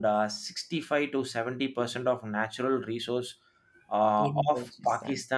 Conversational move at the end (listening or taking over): listening